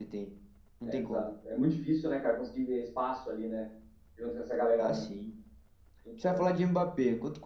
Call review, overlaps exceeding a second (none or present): none